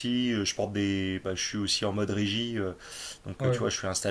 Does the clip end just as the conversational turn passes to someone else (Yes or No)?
No